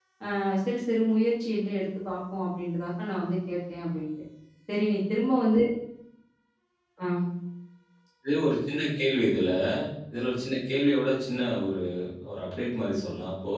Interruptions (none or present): none